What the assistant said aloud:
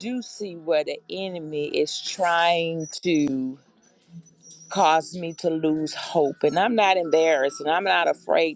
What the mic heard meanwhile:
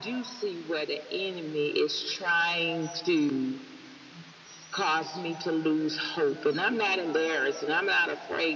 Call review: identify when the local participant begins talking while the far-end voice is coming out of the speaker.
none

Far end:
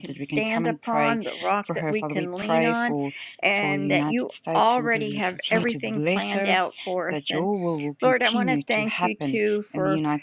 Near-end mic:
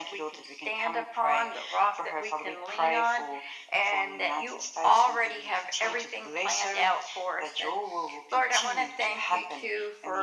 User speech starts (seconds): none

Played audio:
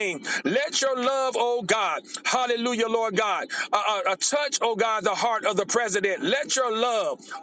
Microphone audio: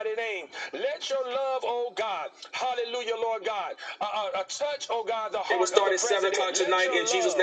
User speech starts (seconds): 5.5 s

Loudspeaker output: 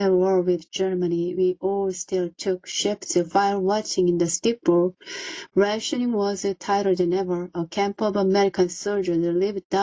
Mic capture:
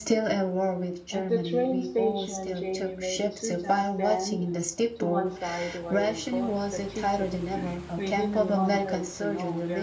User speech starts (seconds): 1.1 s

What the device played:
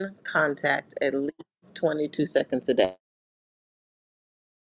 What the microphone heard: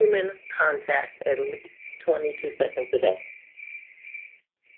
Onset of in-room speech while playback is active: none

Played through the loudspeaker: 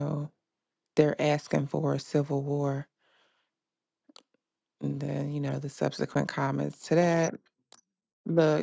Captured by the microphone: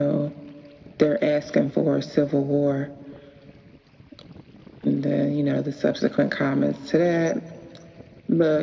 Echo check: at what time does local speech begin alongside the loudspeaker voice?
none

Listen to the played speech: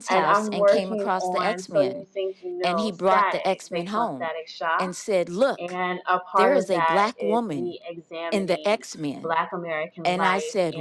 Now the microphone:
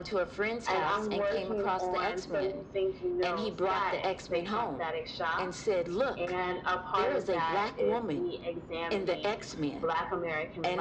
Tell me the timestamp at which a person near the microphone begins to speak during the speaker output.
none

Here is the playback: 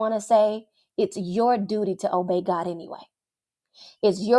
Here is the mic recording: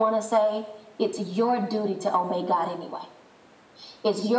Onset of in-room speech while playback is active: none

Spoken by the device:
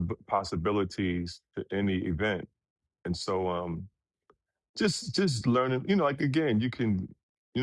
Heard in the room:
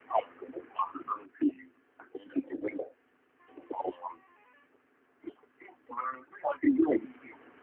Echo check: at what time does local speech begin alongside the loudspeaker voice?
none

